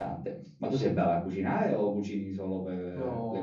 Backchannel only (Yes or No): No